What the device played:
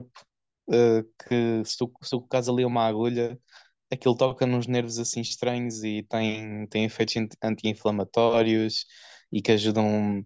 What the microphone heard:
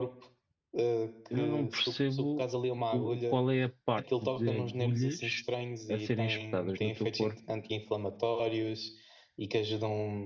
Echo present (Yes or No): Yes